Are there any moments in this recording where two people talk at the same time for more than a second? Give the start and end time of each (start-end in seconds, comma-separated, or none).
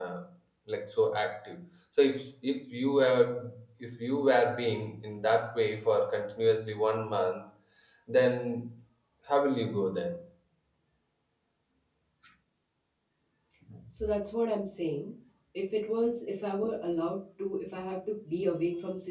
none